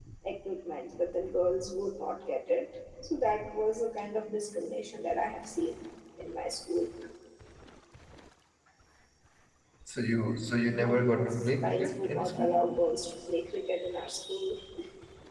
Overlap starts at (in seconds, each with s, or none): 10.6 s